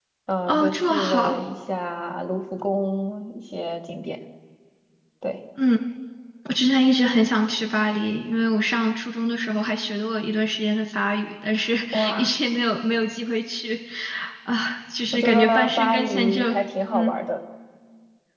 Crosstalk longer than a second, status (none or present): present